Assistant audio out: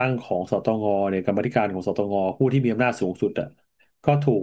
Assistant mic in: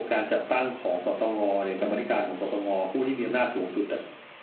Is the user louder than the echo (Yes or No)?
No